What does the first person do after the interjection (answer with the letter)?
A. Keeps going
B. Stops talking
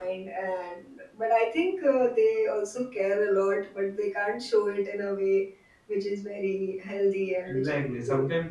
B